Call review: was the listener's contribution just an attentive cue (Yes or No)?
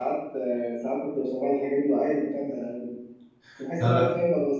Yes